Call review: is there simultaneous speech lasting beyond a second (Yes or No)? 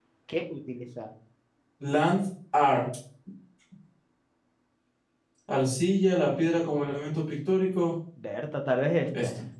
No